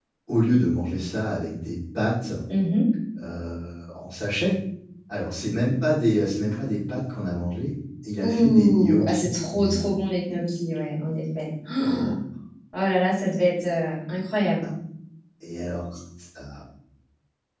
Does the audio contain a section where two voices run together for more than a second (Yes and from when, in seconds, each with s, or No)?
Yes, from 8.2 s